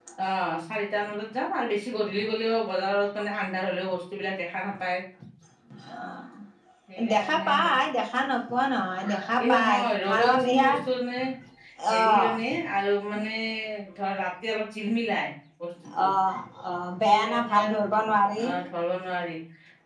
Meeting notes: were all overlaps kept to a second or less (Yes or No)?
No